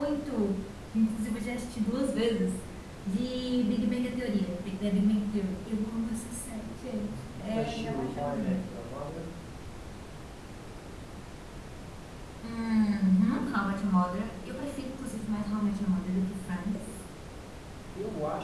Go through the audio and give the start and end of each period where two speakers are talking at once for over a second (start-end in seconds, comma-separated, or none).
7.0-8.6